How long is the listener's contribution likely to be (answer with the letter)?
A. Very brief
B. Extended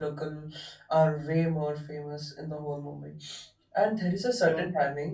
A